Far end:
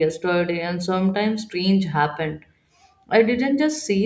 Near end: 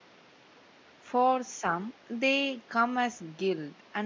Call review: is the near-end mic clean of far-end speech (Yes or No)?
Yes